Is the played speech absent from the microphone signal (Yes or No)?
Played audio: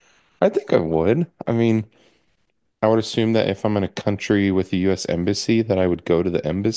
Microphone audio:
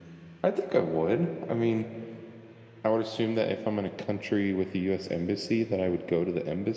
No